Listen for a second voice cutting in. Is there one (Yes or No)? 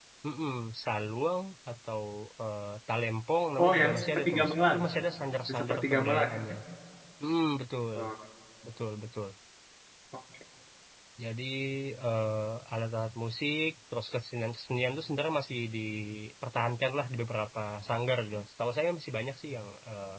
Yes